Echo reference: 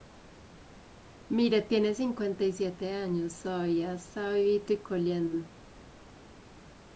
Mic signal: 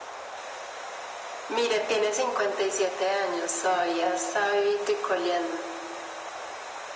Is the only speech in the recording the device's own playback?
Yes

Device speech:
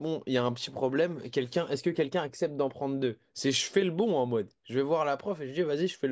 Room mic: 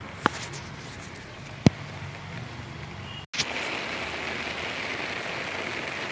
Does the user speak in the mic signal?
No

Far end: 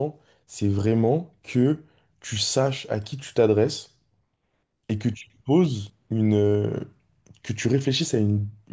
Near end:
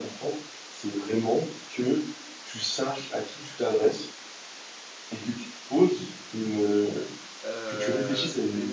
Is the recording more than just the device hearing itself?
Yes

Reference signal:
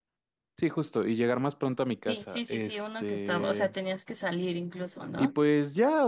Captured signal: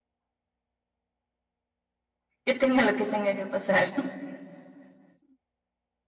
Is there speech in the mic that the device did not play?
Yes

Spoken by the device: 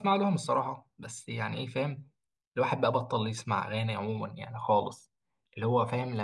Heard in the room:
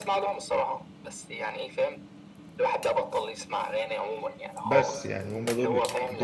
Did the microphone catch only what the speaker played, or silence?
No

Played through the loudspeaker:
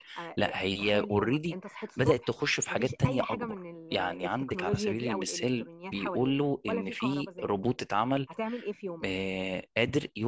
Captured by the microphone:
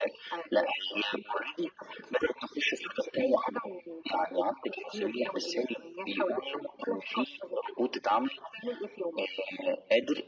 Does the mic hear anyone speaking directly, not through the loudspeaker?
No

